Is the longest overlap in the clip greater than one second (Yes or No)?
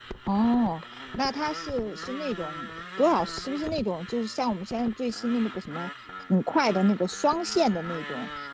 No